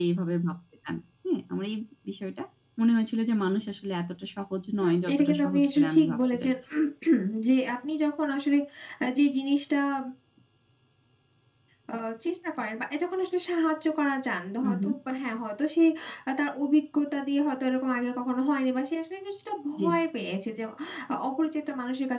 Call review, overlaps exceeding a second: present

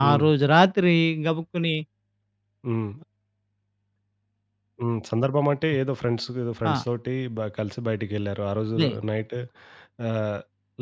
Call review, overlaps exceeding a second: none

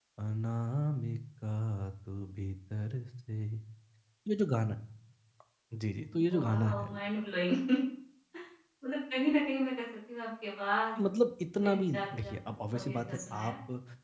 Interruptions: present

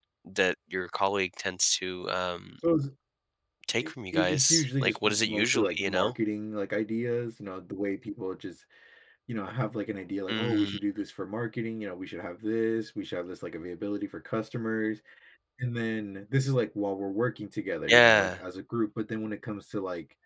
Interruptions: present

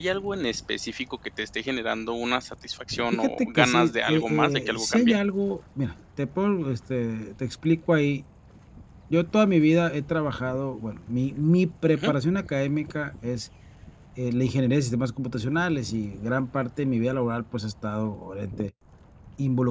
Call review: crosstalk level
present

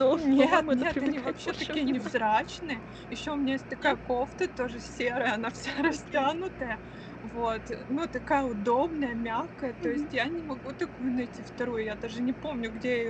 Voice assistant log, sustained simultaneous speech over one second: present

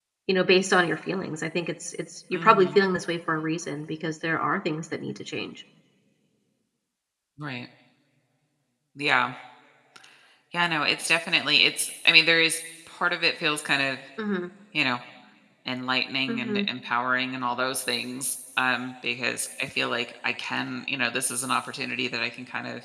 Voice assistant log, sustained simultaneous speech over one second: none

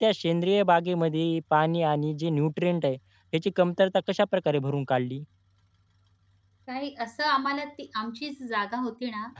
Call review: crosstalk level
none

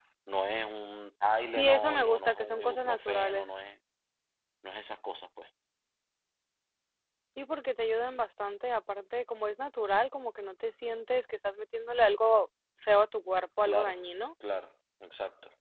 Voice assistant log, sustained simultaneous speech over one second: present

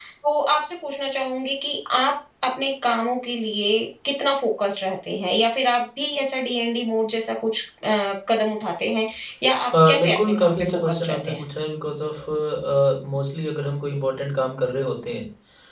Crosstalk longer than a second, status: present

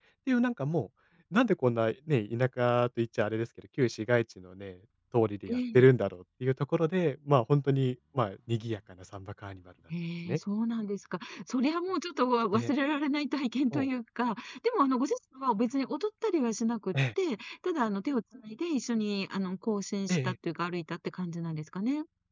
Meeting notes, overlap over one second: none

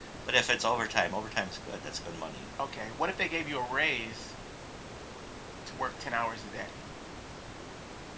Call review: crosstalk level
none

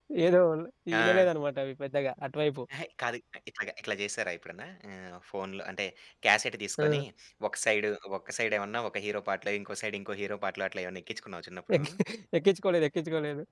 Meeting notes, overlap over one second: none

